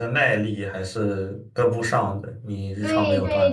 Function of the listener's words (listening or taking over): taking over